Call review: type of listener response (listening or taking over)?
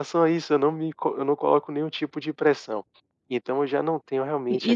taking over